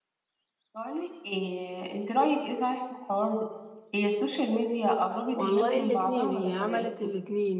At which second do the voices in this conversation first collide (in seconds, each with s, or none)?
5.3 s